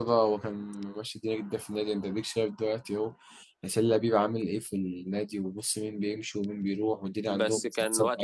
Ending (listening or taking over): taking over